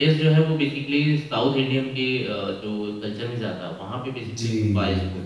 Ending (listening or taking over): taking over